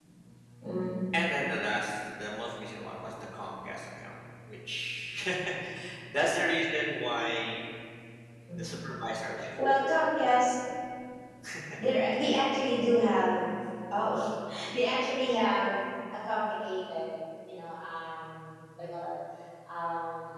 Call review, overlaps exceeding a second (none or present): none